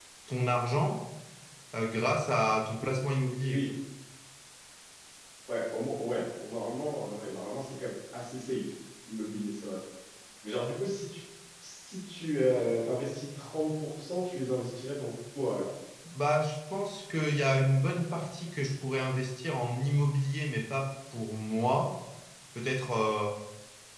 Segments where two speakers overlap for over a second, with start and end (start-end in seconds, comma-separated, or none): none